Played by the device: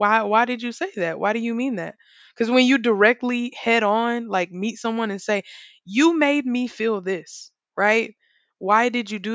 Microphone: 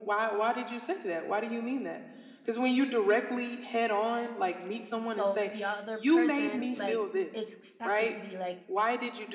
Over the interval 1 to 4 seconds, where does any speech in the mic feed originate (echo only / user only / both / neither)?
echo only